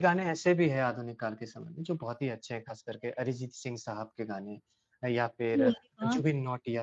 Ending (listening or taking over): listening